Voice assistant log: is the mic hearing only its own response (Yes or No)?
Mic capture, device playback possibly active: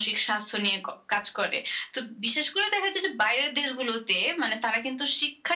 Yes